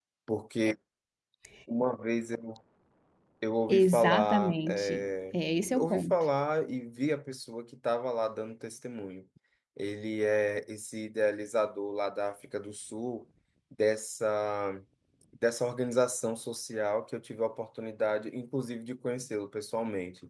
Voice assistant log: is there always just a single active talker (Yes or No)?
No